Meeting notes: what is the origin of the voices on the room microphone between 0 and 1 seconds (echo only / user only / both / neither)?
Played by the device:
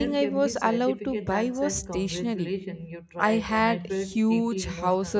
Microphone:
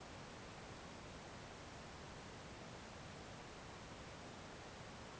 neither